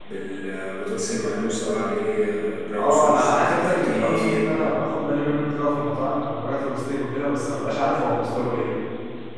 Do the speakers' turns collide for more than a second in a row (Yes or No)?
Yes